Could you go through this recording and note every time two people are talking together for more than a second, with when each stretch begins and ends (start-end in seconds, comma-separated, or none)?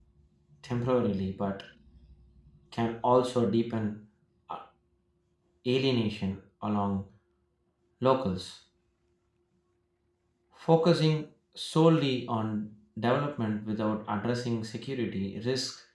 none